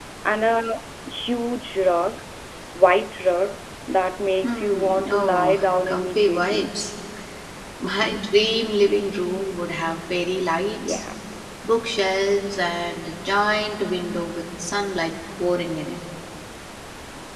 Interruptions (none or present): present